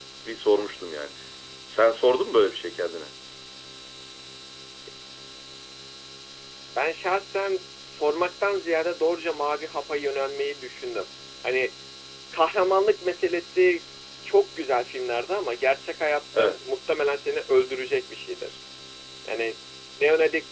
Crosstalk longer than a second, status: none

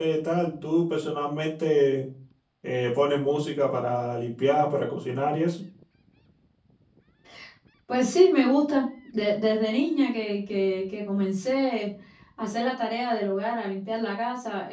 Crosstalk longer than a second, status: none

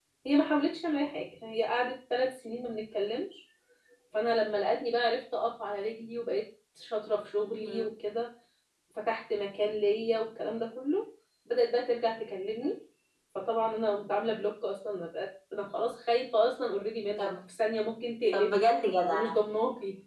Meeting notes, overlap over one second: none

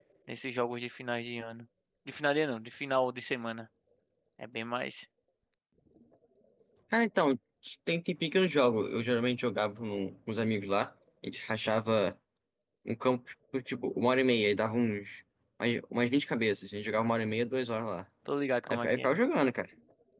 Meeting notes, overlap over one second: none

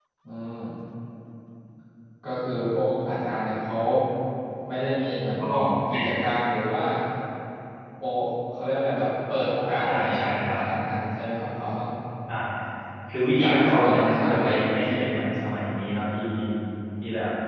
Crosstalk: present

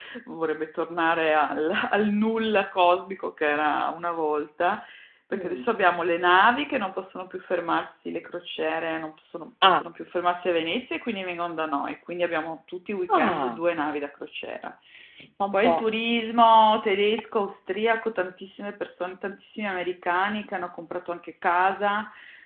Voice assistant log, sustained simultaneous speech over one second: none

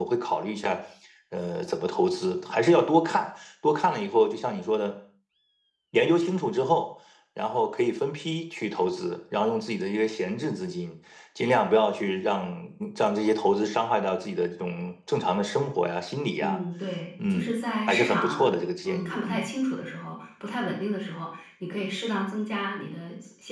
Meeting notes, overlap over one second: present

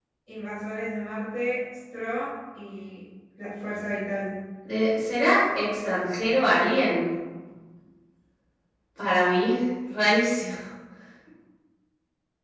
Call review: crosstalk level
none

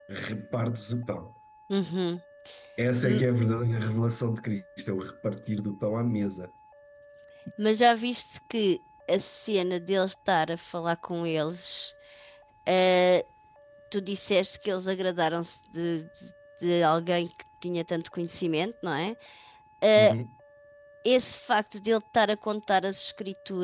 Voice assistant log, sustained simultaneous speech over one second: none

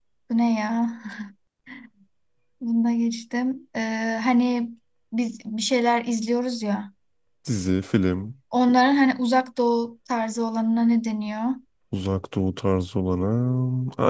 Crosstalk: none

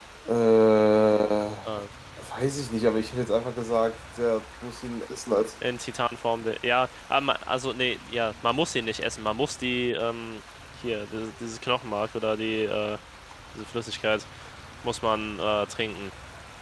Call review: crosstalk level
none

